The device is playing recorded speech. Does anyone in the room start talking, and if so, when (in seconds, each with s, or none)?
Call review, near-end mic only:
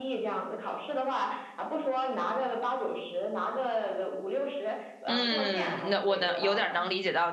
5.0 s